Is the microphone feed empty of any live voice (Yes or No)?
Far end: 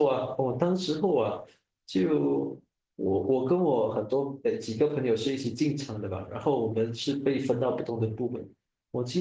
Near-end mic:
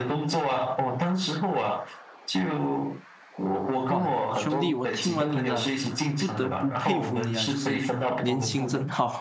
No